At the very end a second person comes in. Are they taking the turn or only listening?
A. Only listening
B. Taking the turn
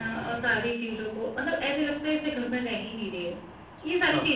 A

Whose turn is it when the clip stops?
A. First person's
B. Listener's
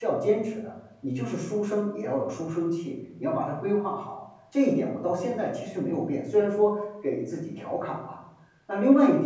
A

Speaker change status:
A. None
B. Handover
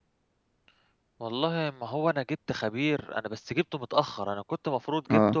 A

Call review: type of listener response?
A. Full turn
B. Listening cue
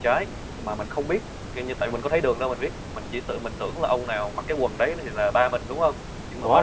A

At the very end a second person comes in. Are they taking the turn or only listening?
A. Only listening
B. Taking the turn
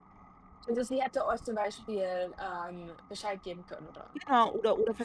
B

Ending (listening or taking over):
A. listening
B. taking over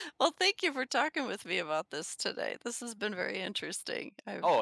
B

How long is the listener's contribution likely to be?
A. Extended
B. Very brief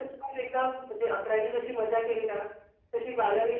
B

